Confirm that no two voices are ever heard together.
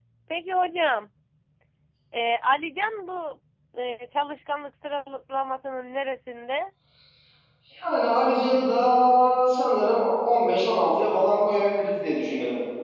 Yes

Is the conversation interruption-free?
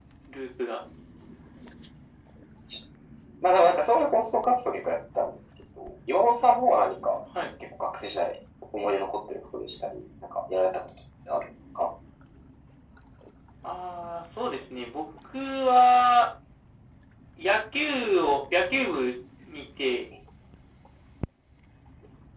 Yes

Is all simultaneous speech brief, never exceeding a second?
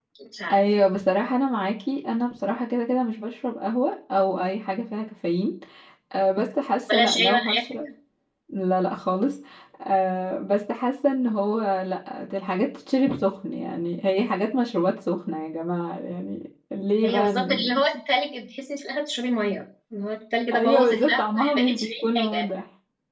No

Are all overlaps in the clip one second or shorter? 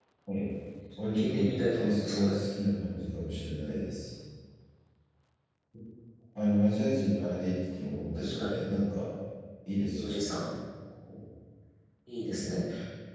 No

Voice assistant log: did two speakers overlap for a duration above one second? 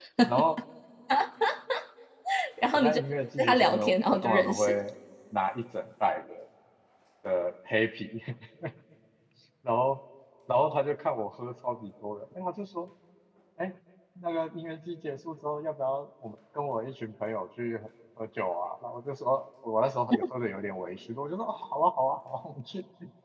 Yes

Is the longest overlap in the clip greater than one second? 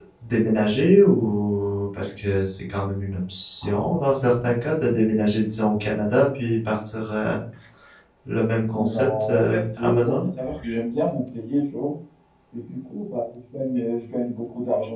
Yes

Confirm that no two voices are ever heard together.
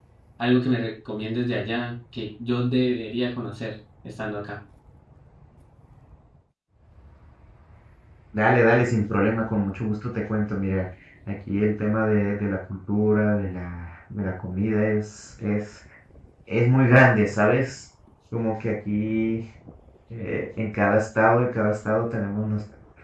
Yes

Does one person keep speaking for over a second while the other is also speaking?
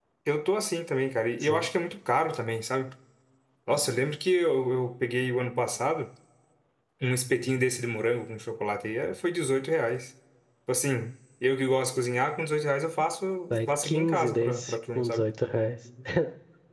Yes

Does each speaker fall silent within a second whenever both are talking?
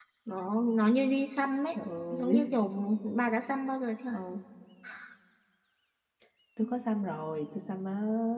Yes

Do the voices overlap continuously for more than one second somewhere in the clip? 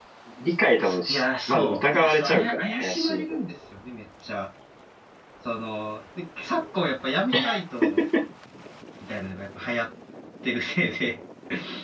Yes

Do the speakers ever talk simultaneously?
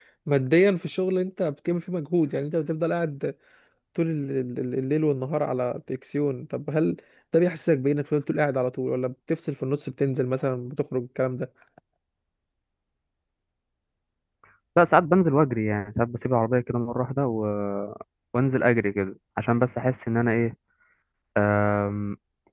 No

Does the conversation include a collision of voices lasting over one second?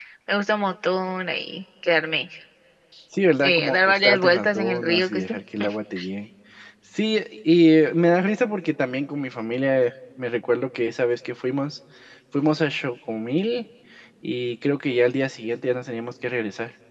Yes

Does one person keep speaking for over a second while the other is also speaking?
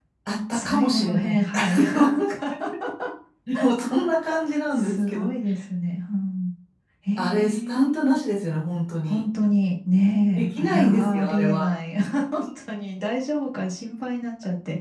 Yes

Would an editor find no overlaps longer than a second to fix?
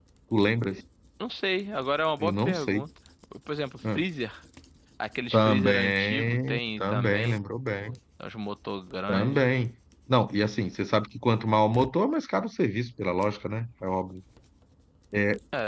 No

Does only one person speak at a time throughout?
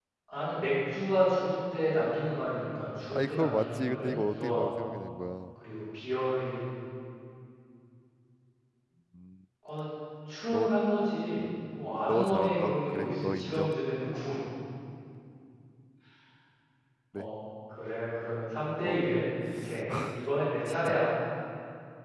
No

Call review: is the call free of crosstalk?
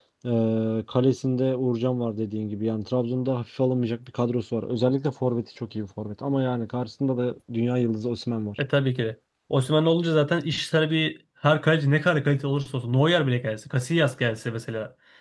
Yes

